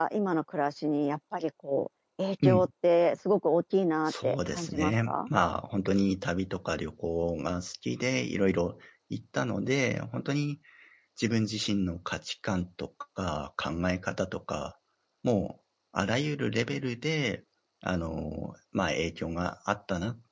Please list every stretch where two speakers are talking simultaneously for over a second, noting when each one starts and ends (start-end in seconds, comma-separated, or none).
4.1-5.3